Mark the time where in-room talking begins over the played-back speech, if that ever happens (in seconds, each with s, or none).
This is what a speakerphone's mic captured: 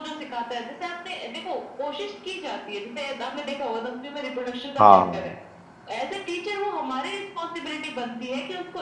4.8 s